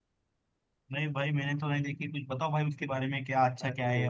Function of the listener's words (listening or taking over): listening